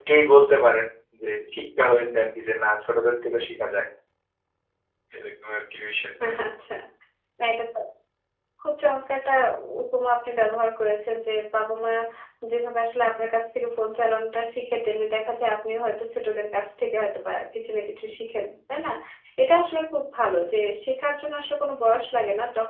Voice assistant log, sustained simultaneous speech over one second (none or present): none